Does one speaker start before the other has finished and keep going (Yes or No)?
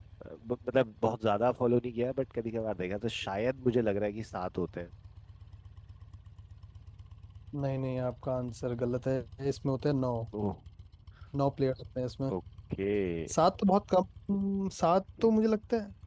No